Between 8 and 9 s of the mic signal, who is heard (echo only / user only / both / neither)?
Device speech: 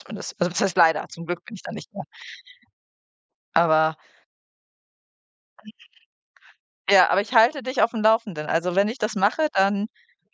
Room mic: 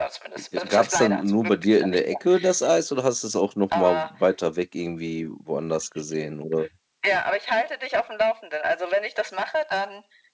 echo only